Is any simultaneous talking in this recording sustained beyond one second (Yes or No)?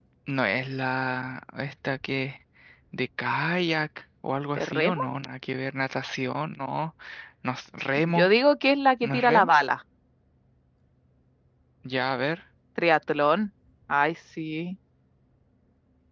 No